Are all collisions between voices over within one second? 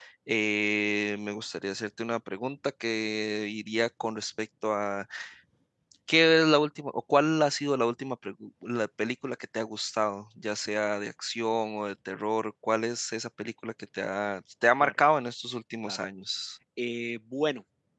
Yes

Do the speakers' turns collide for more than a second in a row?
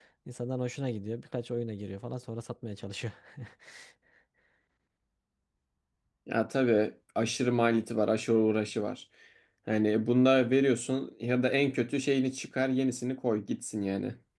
No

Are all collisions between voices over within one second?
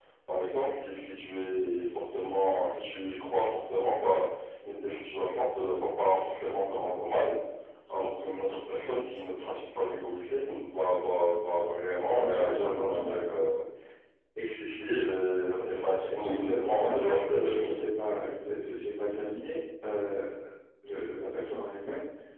No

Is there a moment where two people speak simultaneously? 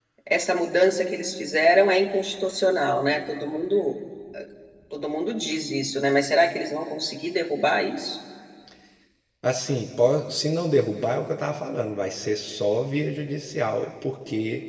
No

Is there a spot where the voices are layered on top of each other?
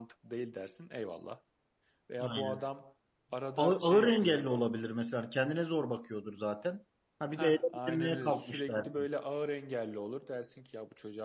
Yes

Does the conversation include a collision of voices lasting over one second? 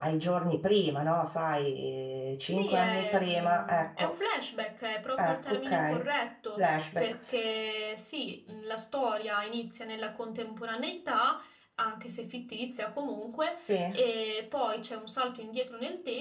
Yes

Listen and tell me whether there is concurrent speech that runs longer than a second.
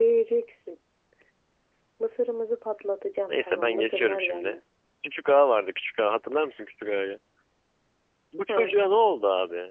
Yes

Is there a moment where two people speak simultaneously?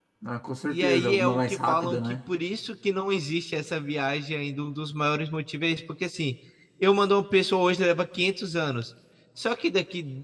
Yes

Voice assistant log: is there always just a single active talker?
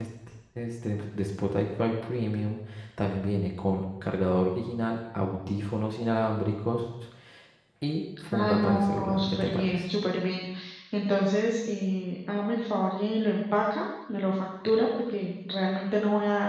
No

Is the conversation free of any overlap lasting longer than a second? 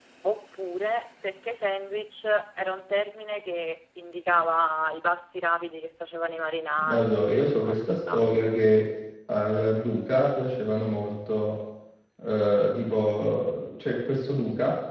No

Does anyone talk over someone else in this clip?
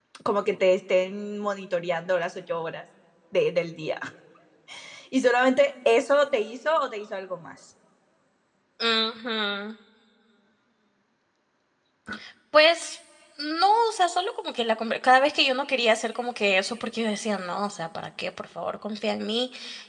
No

